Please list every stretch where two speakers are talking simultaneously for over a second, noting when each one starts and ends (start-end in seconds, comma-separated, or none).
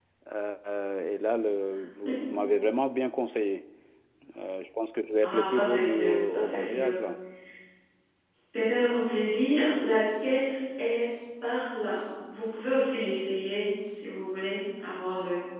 5.2-7.0